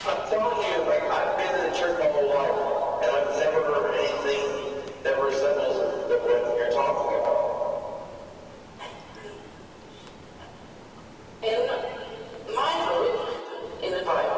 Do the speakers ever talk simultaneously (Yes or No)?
No